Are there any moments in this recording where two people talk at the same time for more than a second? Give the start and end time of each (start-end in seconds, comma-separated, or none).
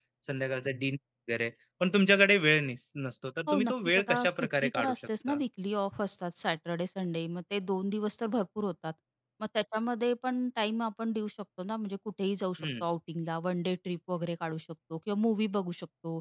3.5-5.4